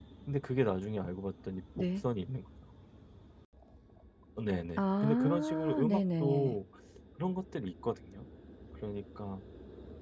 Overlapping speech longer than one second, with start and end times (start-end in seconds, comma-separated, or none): 4.8-6.6